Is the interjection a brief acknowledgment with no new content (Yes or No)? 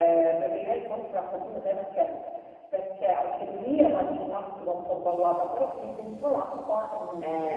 No